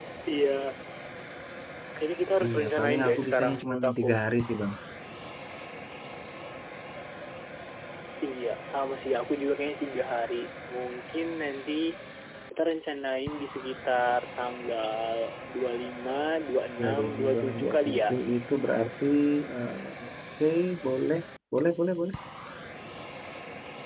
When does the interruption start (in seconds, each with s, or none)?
2.4 s